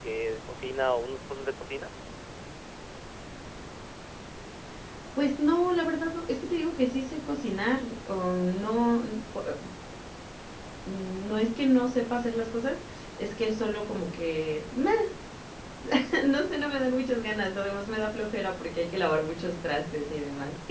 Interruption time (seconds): none

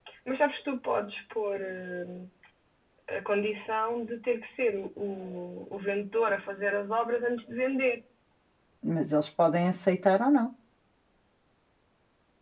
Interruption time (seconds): none

